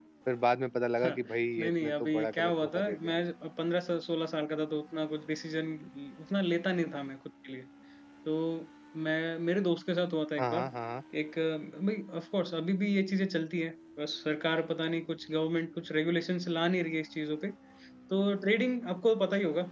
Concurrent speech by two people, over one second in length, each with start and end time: 1.6-3.2

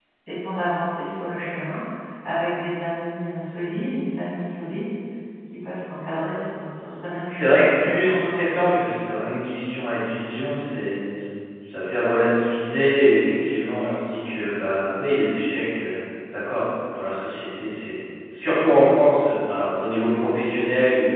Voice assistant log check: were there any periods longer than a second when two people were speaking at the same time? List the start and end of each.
7.3-8.5

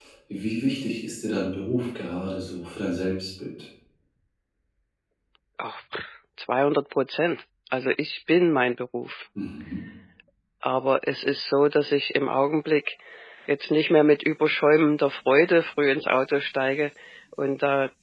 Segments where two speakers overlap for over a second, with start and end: none

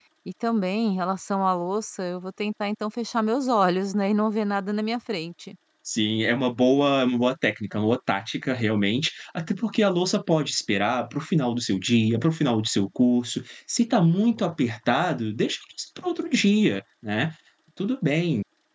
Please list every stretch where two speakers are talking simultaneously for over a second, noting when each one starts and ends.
none

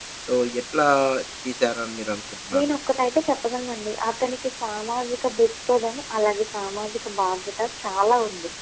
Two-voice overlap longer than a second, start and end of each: none

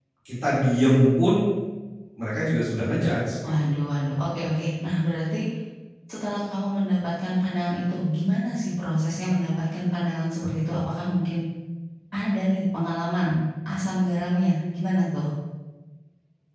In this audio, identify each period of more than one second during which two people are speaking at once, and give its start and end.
none

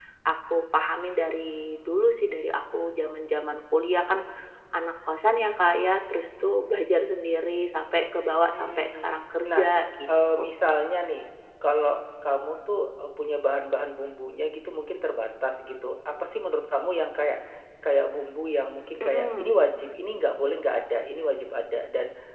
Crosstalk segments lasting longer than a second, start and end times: none

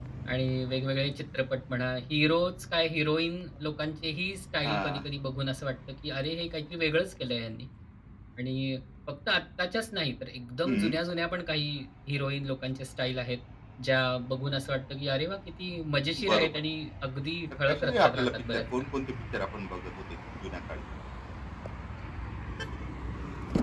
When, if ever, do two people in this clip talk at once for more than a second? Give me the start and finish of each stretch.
17.7-18.9

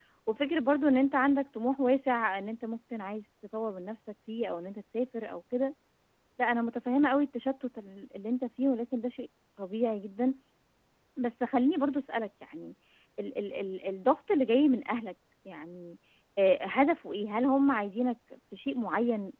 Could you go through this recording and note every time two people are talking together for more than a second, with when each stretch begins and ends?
none

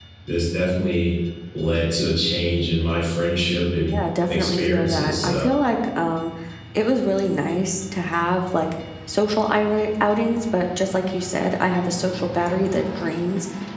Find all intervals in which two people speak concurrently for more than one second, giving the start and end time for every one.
4.3-5.5

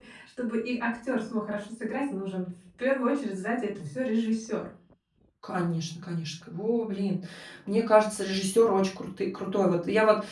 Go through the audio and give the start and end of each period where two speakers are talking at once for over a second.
none

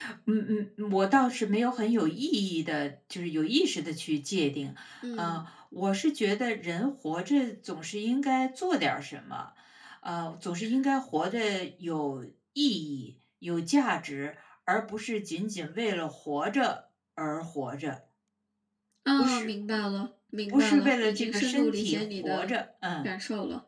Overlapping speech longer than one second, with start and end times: 20.5-22.5

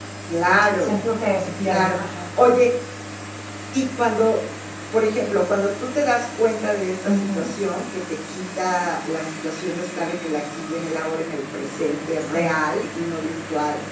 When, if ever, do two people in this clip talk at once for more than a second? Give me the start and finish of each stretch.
none

